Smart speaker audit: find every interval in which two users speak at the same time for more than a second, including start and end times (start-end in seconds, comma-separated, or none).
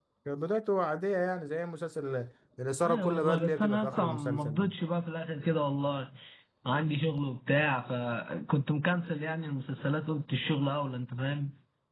2.9-4.7